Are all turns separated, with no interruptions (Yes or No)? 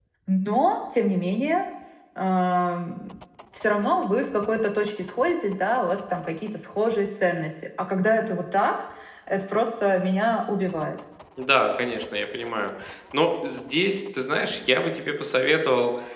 Yes